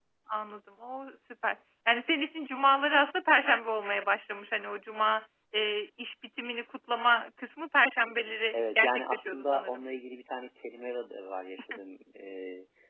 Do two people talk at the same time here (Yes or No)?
Yes